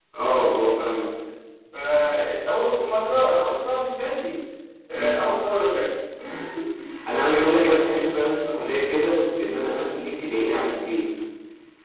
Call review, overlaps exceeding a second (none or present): none